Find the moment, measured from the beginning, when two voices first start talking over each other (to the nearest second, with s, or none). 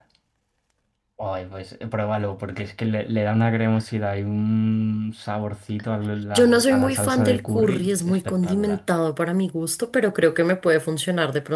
6 s